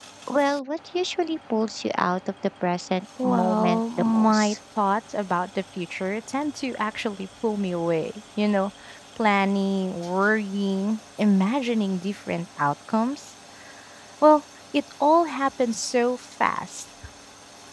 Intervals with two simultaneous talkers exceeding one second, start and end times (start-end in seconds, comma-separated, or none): 3.2-4.5